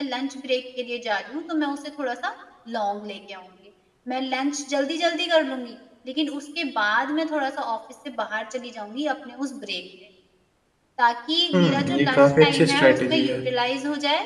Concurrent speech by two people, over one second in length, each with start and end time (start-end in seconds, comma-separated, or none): 11.6-13.4